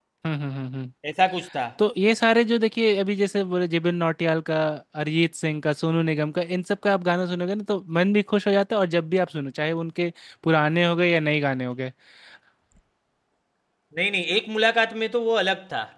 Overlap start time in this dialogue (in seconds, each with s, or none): none